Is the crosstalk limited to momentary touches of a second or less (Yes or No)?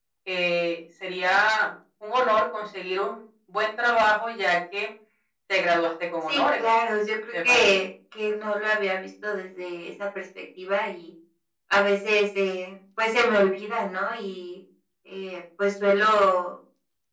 Yes